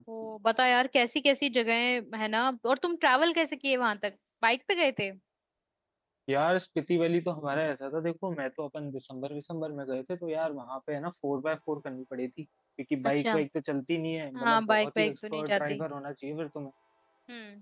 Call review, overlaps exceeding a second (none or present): present